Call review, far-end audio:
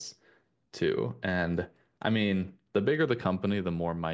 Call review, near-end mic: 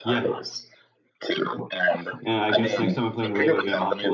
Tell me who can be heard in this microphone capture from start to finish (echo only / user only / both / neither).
both